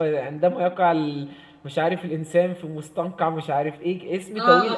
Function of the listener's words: taking over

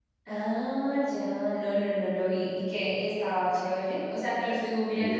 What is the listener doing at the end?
listening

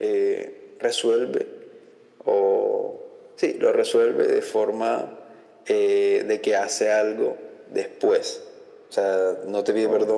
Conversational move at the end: listening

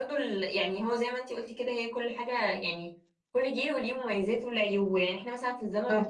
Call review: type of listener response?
listening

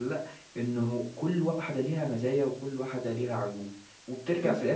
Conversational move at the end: listening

